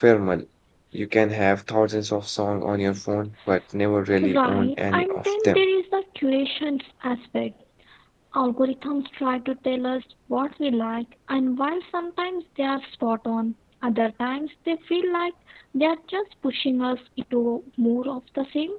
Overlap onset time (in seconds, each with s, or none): 4.2 s